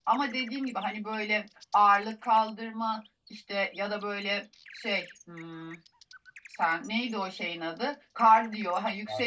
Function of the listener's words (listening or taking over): listening